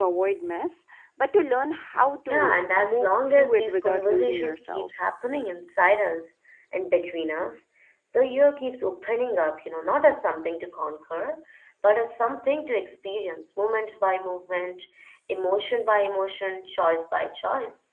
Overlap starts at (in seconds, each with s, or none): 2.3 s